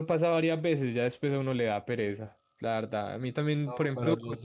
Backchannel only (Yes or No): No